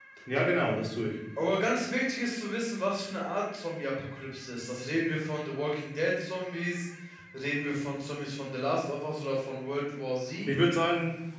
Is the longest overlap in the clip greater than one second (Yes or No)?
No